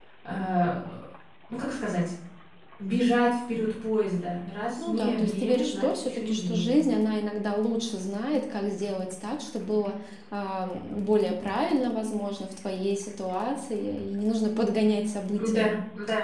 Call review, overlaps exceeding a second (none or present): present